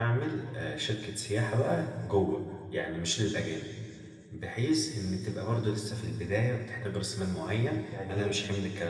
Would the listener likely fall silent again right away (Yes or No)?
Yes